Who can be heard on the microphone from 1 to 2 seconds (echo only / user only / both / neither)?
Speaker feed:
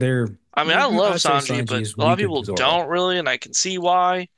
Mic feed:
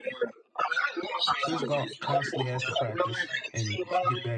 both